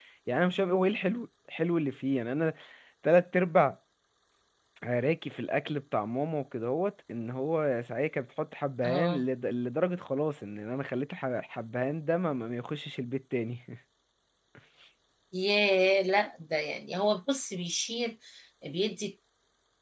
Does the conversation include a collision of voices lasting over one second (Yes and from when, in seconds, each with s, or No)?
No